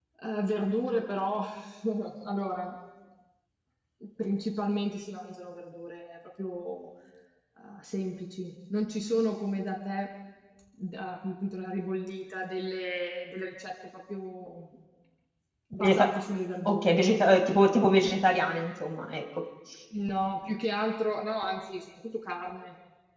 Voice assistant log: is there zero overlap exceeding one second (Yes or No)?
Yes